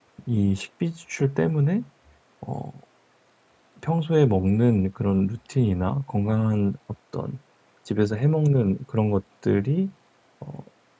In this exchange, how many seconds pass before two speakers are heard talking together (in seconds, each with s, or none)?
none